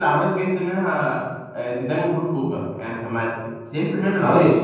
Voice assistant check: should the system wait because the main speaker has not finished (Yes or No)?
No